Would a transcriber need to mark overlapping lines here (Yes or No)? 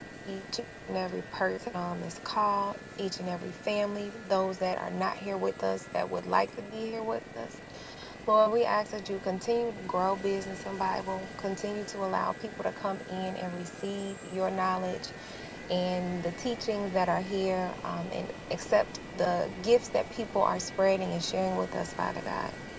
No